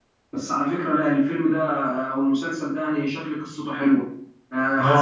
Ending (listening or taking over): taking over